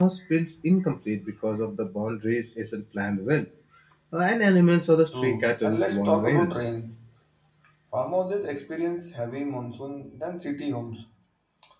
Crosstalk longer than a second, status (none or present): present